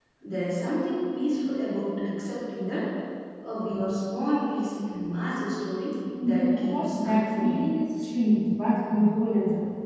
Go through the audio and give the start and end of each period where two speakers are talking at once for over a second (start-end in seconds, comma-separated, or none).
6.2-7.7